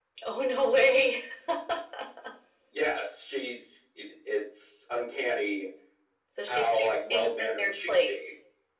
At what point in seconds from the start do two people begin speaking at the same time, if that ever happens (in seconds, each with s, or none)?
6.5 s